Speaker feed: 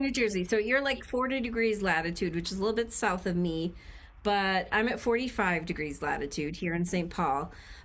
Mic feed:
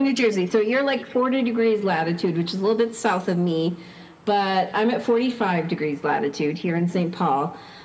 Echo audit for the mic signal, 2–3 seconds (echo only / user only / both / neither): echo only